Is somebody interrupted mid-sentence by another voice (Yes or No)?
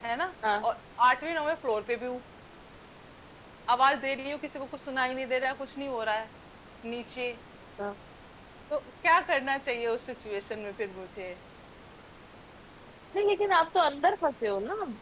No